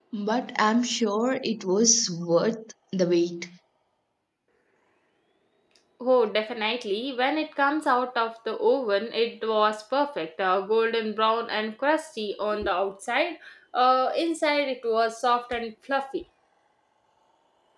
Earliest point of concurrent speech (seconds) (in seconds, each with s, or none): none